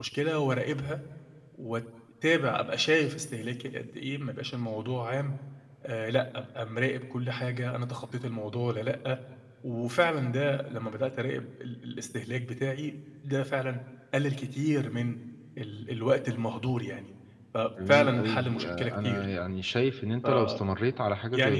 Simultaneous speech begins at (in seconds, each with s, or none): 17.9 s